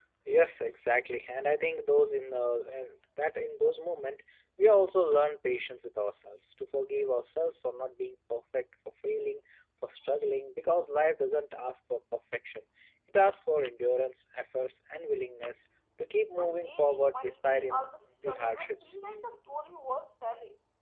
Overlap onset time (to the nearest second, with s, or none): 16 s